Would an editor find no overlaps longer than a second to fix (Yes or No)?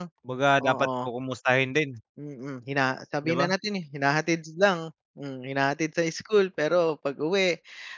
Yes